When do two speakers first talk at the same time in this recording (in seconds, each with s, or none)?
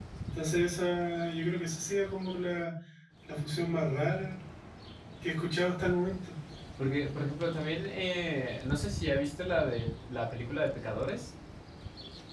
none